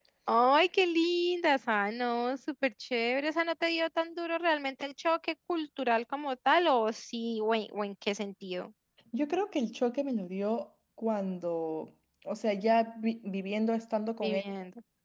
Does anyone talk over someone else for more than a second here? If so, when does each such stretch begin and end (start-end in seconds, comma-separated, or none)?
none